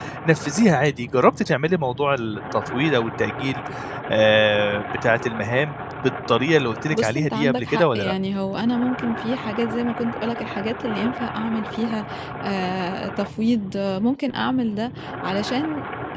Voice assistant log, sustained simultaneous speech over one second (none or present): present